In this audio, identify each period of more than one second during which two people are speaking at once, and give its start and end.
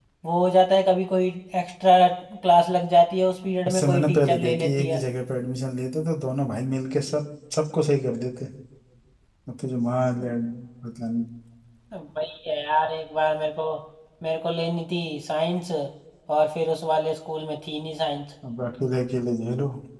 3.7-5.0

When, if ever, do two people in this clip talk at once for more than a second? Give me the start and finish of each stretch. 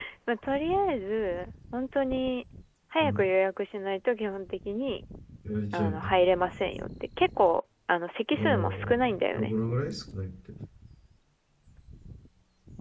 8.3-9.5

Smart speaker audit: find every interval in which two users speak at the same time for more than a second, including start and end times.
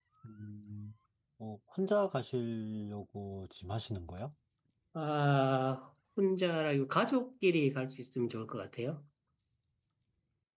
none

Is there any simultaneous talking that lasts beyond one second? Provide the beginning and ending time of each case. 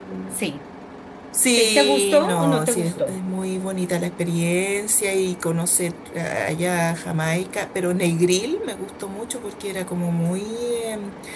1.6-3.2

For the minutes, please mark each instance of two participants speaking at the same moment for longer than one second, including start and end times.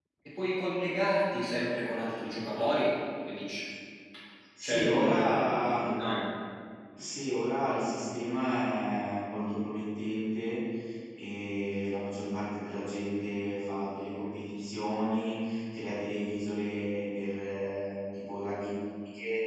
4.6-5.8

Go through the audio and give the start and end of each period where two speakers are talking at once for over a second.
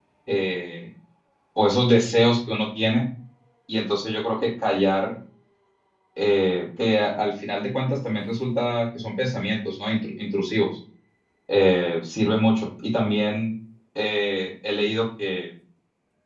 none

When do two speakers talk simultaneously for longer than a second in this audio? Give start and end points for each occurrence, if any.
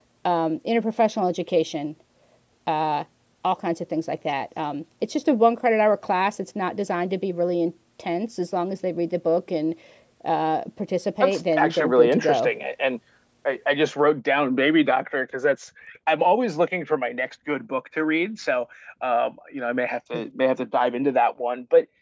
11.2-12.5

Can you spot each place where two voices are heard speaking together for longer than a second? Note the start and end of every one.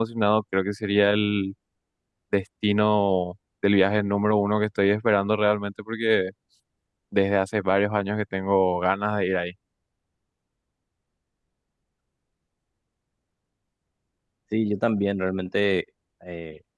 none

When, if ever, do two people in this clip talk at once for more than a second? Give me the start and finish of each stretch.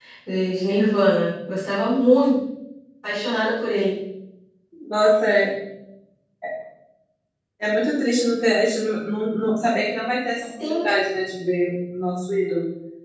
none

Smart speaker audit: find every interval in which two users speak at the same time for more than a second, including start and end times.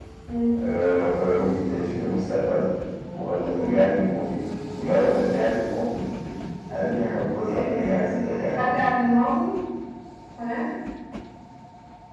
7.5-8.7

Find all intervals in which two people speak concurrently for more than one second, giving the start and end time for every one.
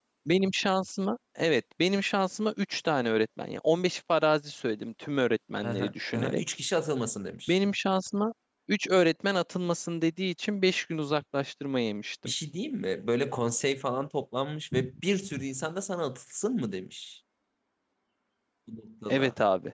none

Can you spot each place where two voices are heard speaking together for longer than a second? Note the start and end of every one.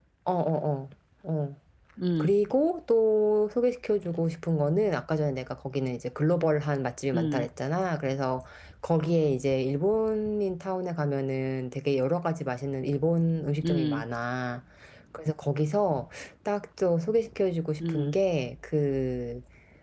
none

